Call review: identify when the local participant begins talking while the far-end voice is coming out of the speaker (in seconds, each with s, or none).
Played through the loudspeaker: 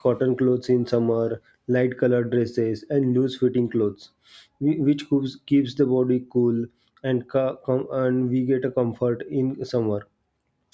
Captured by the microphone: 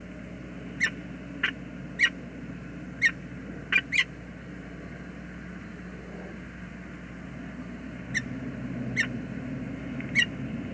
none